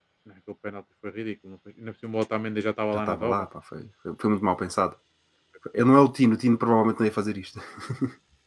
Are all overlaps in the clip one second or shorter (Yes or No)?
Yes